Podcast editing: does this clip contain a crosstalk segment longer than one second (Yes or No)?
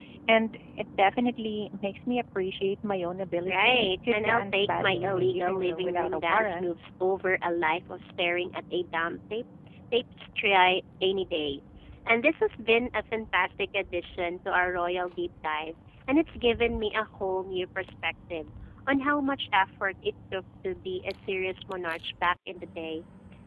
Yes